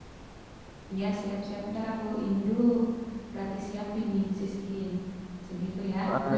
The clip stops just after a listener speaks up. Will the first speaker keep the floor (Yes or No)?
No